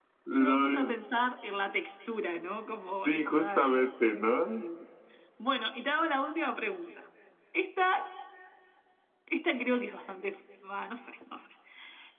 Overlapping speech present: Yes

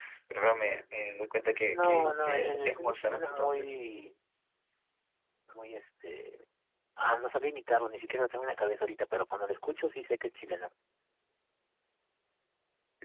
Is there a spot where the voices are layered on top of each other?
Yes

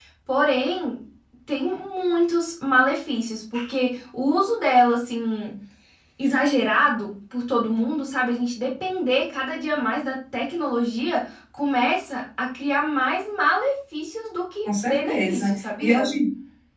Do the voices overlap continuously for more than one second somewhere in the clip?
Yes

